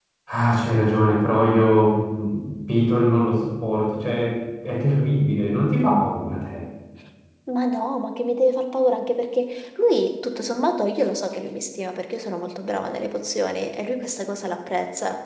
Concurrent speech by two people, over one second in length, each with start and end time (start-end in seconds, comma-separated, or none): none